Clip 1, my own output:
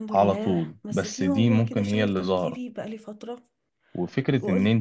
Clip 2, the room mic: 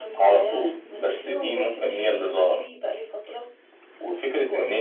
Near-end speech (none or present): none